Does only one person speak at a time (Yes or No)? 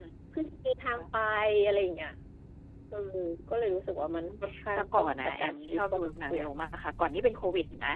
No